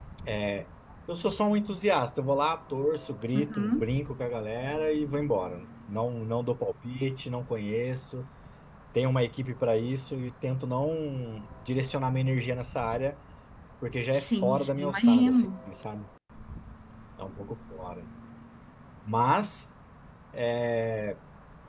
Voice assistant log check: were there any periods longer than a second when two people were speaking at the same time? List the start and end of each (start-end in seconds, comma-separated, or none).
14.1-15.5